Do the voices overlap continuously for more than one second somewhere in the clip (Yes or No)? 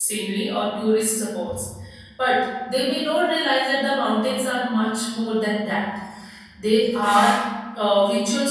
No